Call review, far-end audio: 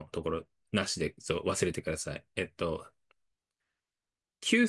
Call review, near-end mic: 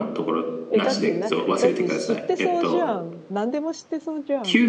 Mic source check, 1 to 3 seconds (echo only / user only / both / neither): both